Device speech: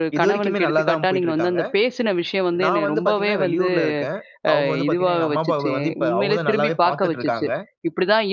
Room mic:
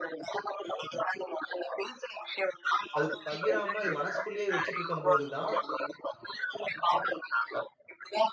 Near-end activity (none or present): present